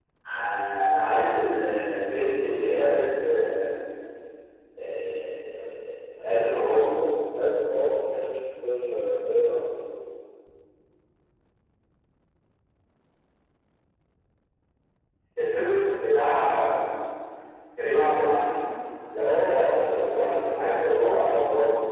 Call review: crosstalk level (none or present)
present